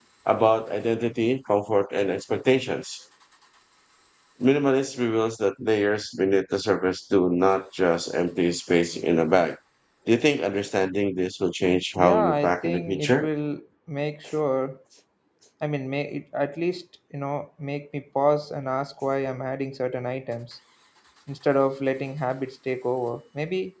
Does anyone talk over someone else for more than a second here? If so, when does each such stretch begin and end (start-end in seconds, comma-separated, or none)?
11.9-13.3